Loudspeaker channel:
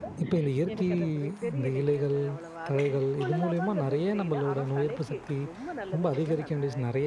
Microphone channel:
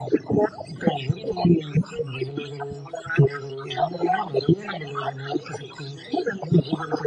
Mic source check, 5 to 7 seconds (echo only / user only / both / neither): echo only